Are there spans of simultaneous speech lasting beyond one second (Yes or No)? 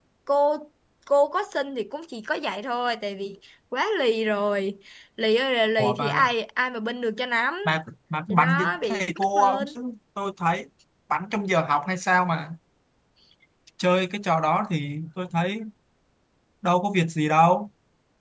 Yes